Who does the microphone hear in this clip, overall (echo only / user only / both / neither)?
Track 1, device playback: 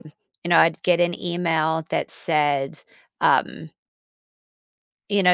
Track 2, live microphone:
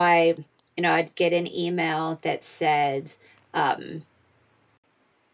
echo only